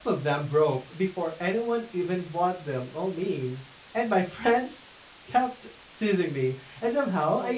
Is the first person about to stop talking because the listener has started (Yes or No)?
No